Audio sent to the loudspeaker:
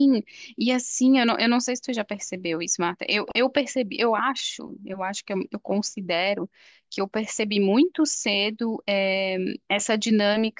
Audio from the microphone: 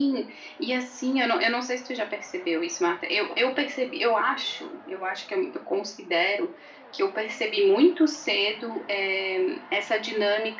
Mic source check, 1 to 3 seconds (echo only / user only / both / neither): echo only